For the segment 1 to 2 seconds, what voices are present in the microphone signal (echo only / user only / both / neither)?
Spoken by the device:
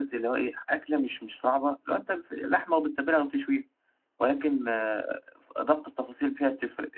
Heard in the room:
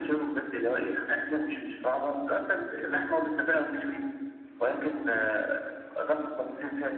echo only